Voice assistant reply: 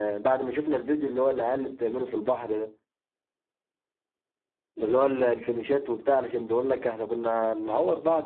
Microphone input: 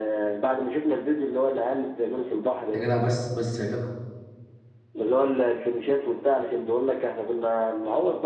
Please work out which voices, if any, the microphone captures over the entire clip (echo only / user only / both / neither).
both